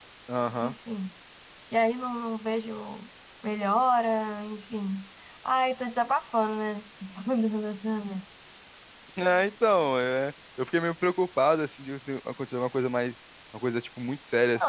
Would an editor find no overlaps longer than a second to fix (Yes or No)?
Yes